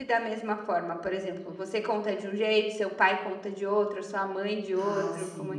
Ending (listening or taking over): taking over